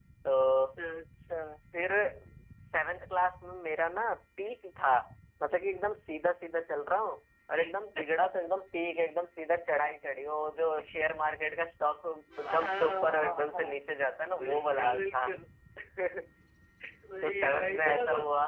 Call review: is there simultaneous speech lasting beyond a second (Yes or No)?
Yes